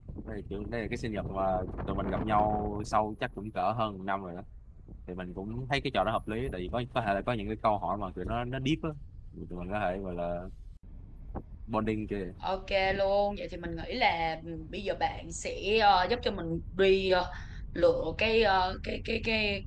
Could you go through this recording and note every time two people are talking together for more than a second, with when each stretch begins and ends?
none

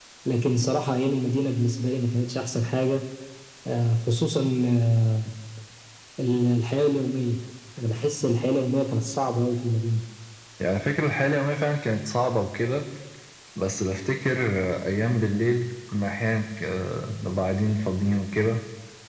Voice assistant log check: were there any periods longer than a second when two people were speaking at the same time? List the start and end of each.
none

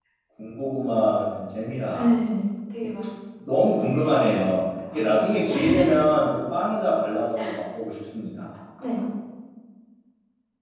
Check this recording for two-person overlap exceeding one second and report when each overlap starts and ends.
none

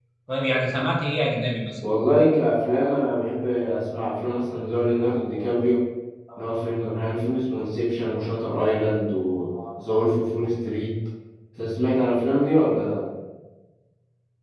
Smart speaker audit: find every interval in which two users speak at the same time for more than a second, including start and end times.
none

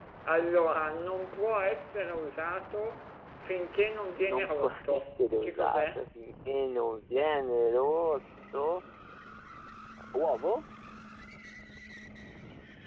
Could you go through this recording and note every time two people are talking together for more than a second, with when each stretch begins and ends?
4.2-5.9

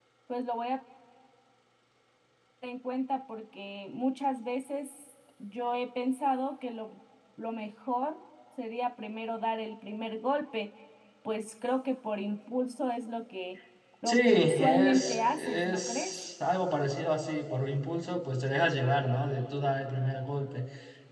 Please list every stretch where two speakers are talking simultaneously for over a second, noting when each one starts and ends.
14.1-16.2

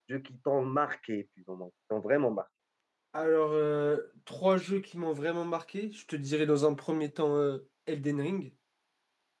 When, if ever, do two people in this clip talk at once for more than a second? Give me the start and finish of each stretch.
none

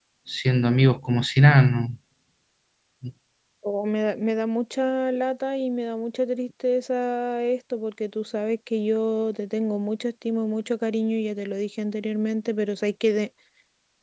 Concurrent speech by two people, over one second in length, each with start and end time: none

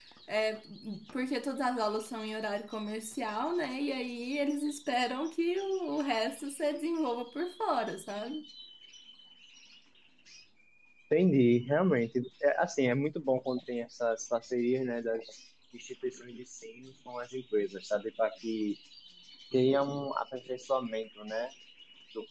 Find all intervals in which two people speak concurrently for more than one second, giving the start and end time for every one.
none

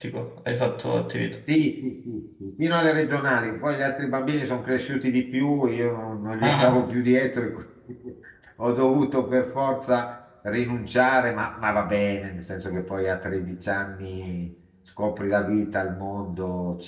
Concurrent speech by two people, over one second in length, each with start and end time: none

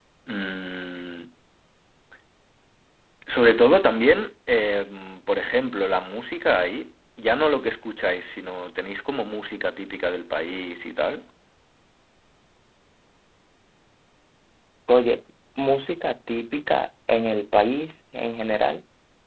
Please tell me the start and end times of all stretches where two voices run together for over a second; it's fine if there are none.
none

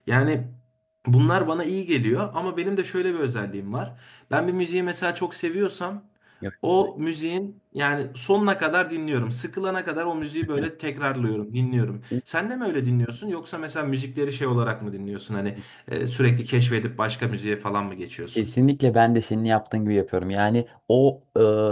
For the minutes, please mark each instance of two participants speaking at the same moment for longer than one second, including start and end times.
none

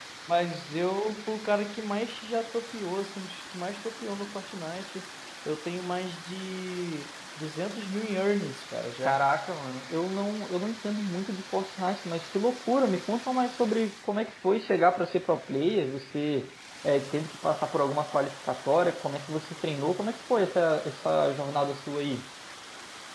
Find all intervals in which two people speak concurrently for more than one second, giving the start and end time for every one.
none

